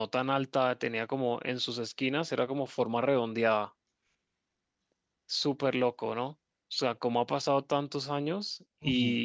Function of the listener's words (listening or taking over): listening